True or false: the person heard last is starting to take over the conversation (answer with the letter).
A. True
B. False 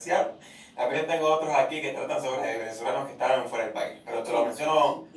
A